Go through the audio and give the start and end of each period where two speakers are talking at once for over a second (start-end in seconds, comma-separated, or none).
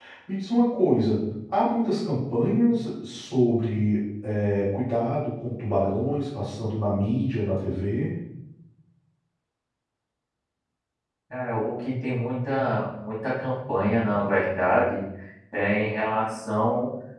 none